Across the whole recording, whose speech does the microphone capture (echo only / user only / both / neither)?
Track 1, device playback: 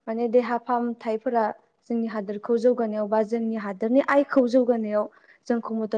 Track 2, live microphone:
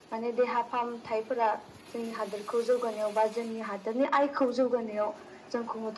echo only